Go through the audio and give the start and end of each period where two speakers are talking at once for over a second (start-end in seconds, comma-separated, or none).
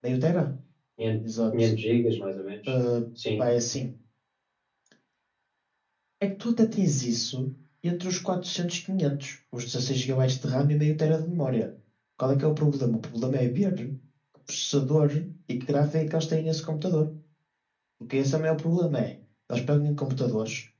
none